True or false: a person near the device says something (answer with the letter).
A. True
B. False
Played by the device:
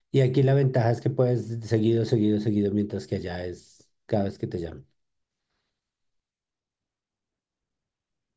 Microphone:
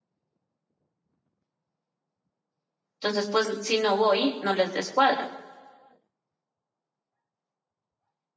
A